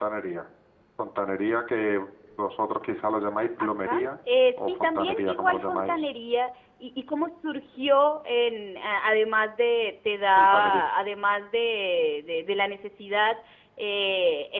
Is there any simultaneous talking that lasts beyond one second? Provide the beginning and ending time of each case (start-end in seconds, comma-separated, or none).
4.6-6.0